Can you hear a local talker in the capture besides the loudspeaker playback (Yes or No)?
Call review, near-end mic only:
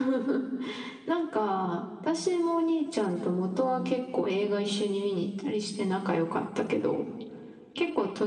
No